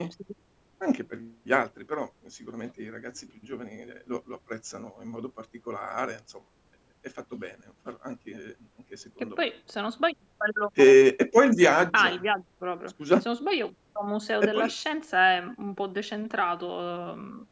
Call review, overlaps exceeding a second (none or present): none